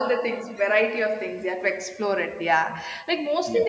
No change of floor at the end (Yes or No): Yes